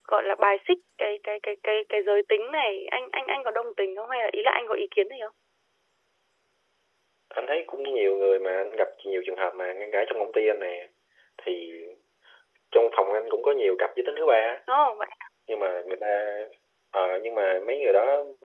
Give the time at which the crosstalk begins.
none

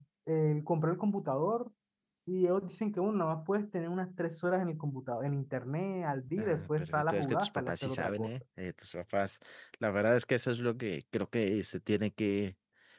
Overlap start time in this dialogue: 6.4 s

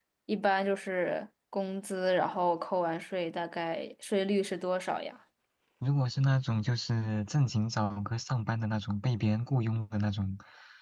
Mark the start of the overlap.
none

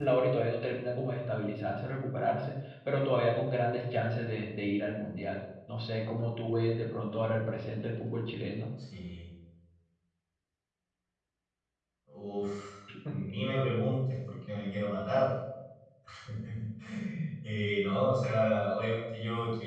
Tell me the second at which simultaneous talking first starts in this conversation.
none

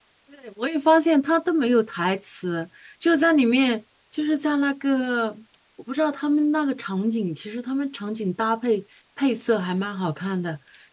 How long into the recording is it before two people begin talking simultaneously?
none

